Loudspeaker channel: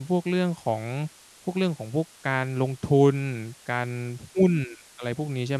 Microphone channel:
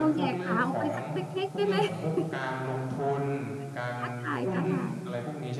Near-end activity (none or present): present